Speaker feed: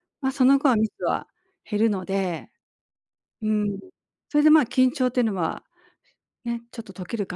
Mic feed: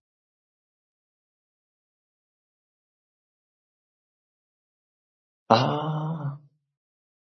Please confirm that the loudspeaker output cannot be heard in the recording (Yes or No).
Yes